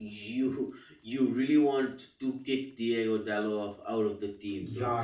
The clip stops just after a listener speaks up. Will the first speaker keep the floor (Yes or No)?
No